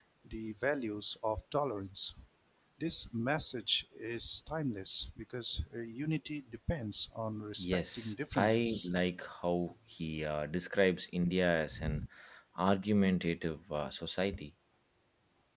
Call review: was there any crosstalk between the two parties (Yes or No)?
Yes